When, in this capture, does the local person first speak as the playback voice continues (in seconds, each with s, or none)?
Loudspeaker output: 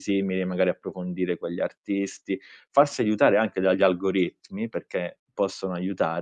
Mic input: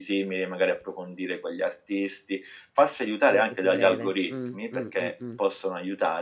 3.3 s